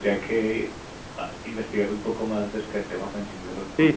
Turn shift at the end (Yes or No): Yes